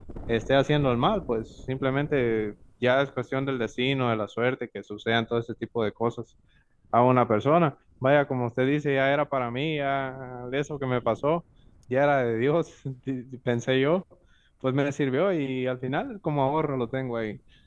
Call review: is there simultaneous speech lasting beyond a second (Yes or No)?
No